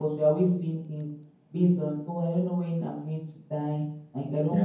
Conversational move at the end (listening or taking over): listening